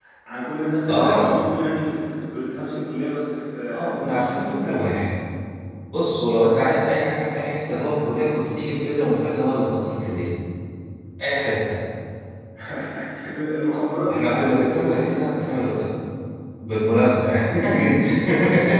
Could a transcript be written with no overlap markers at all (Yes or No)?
No